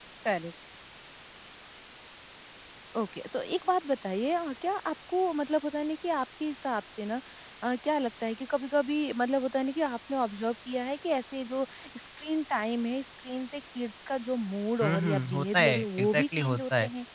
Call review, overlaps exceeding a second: present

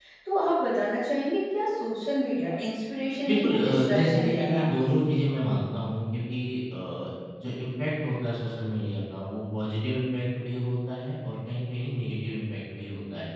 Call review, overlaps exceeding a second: present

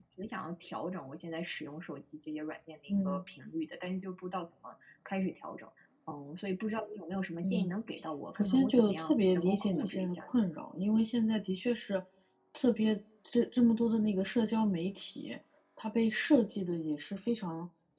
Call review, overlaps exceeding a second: present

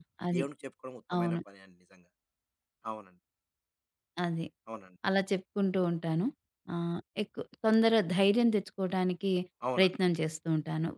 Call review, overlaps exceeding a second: none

